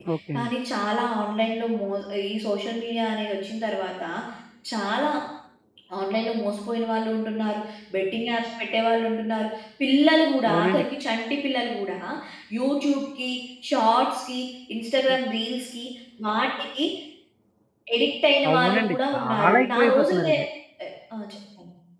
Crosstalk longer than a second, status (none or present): present